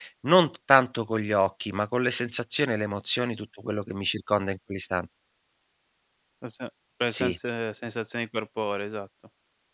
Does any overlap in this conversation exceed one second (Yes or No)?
No